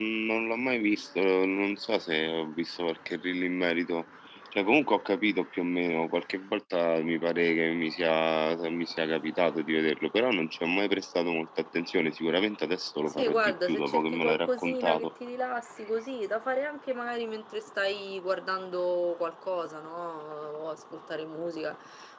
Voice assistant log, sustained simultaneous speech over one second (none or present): present